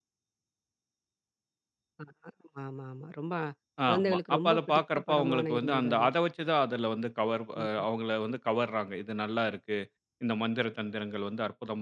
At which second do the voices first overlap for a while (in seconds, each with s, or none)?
3.9 s